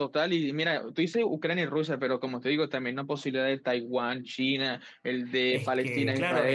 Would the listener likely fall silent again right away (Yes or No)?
No